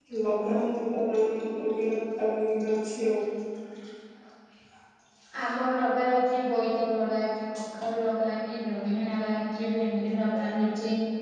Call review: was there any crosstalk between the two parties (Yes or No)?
No